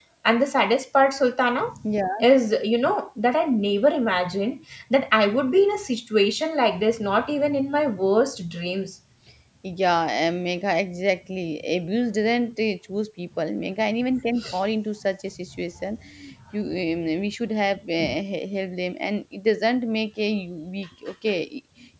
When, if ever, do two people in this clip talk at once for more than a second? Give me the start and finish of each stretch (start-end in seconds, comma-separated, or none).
none